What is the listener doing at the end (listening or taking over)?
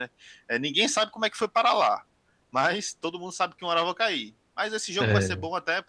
listening